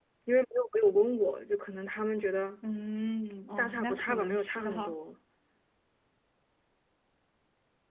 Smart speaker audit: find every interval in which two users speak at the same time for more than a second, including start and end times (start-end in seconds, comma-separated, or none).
3.6-4.9